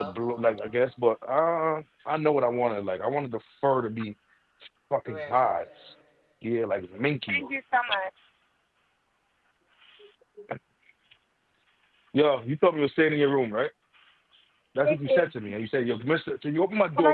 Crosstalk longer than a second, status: none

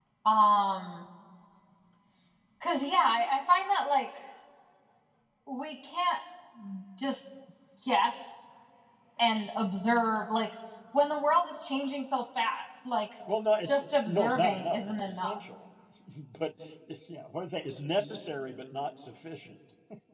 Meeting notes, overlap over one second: present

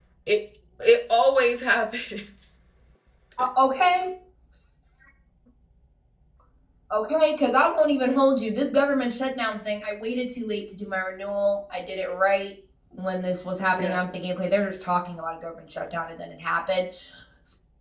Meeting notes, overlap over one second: none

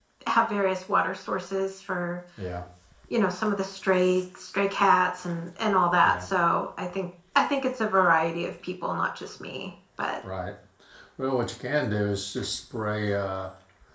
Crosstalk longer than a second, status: none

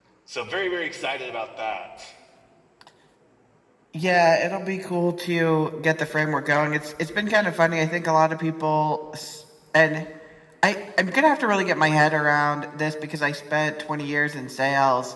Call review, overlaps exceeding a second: none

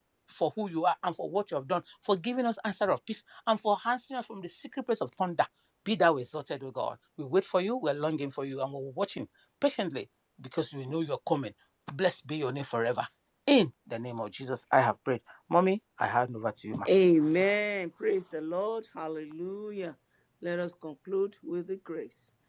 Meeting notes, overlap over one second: none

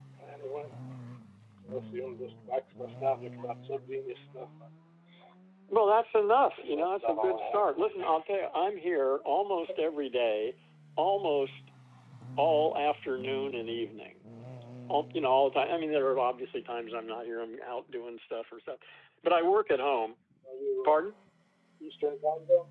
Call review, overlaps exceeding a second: present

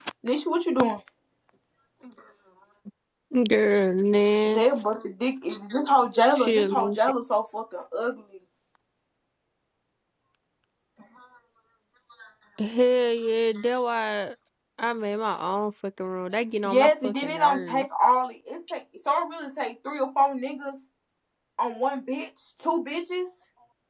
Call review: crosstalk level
present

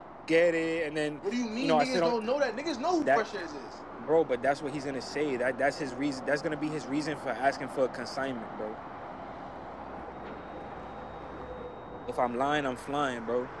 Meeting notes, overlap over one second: none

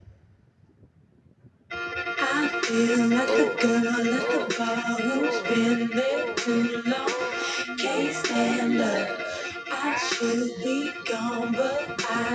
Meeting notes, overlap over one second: present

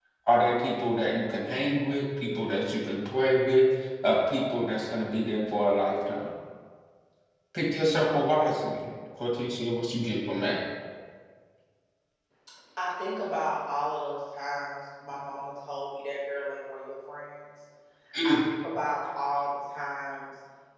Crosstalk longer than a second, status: none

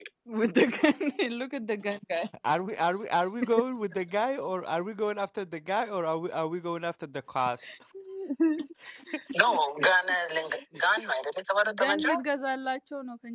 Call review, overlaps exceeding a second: none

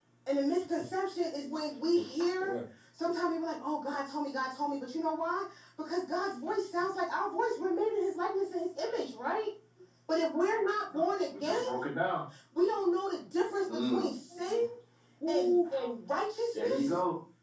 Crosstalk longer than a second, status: none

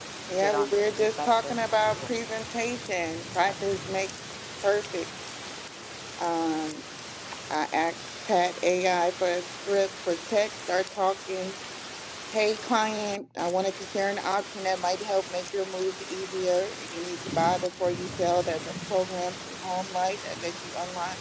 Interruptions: present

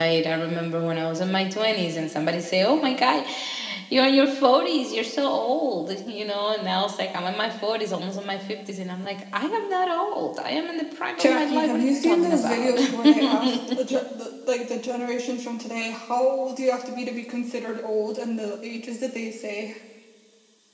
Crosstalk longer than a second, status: present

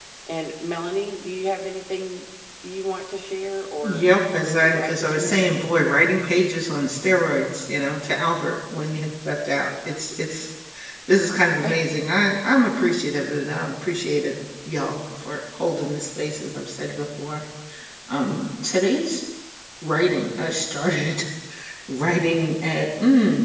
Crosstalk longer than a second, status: present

